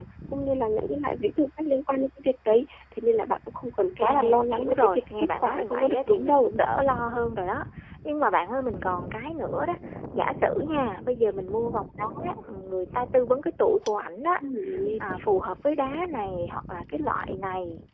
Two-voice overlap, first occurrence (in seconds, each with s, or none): 4.0 s